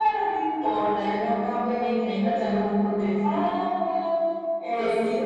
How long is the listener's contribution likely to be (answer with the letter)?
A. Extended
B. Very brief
B